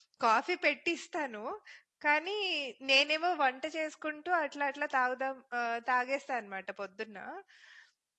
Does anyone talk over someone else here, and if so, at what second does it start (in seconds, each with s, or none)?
none